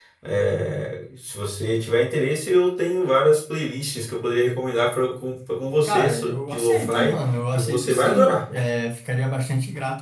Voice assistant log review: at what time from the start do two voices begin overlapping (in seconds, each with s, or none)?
5.8 s